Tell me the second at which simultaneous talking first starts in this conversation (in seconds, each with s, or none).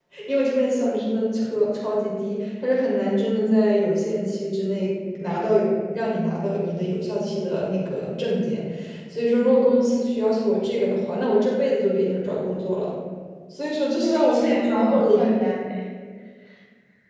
14.0 s